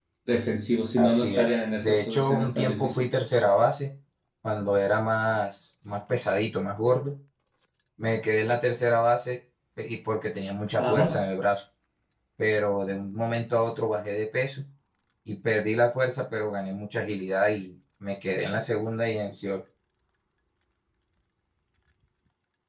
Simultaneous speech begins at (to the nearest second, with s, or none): 1 s